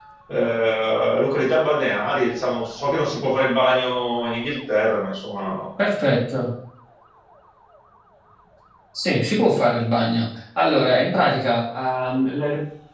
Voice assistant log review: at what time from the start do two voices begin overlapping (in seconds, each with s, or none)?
none